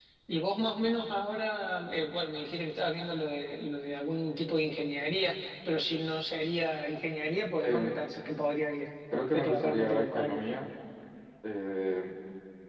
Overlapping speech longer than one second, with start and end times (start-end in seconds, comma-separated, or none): 9.1-10.4